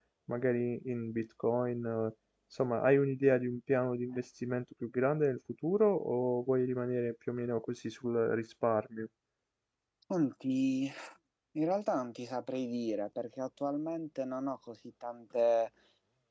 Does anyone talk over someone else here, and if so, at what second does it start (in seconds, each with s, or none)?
none